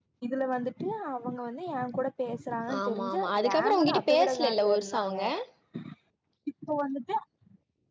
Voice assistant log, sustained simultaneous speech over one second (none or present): present